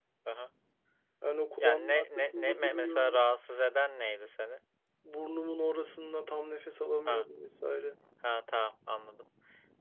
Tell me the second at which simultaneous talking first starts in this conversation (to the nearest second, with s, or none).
2 s